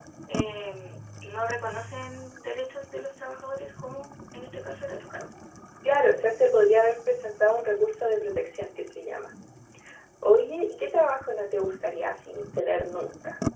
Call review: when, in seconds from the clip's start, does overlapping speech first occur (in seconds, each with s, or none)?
none